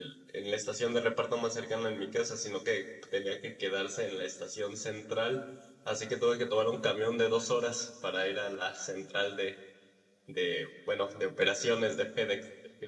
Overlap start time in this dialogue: none

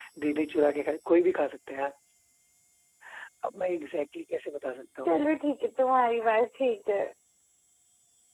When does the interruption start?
none

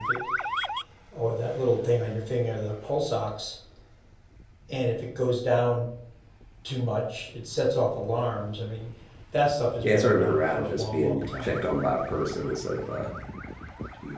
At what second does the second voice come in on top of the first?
9.8 s

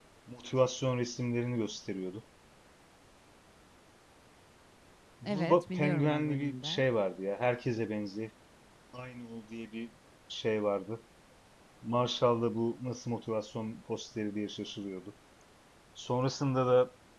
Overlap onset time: 5.3 s

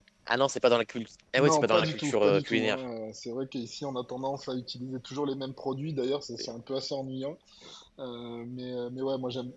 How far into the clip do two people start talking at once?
1.4 s

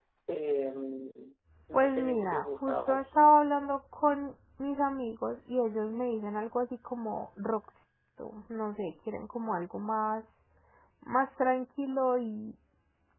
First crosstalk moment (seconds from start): 1.7 s

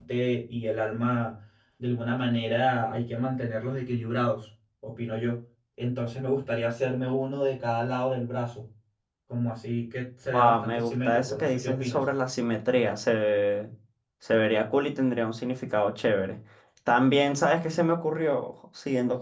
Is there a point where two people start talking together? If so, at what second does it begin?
10.3 s

